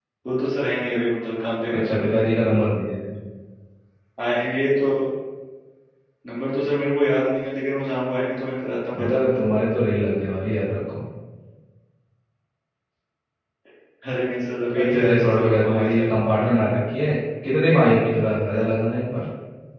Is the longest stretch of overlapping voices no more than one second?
No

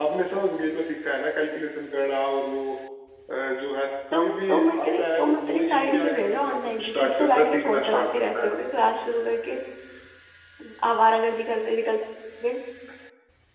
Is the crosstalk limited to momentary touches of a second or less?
No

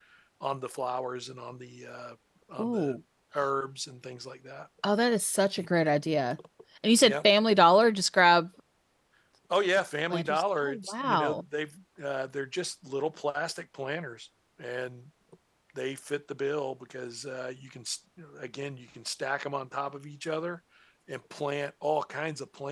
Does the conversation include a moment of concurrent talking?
Yes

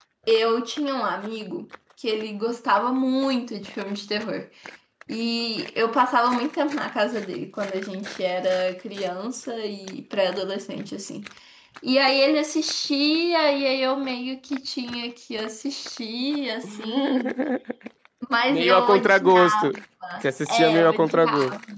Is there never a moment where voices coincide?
No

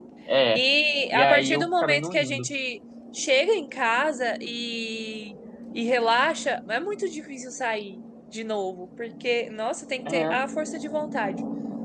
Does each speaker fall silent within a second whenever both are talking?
No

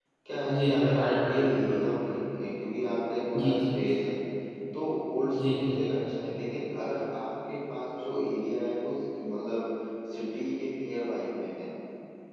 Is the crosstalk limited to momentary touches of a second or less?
No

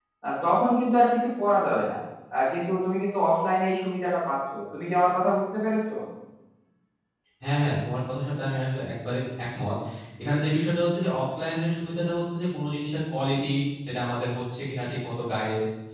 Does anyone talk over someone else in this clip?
No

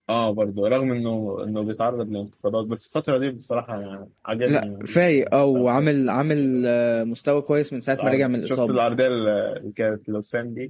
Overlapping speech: Yes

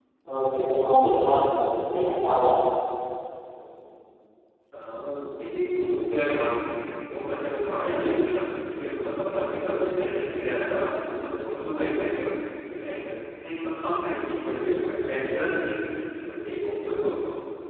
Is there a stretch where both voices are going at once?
No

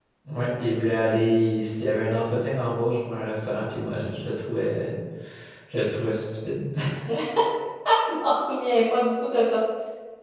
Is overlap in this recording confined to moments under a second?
Yes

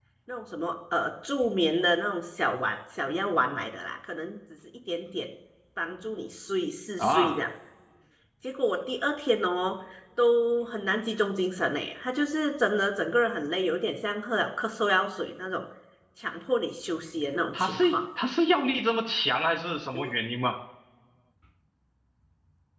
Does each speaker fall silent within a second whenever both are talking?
Yes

